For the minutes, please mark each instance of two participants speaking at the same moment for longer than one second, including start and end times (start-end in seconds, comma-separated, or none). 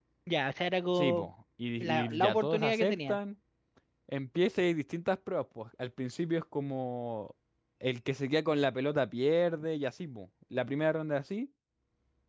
1.8-3.2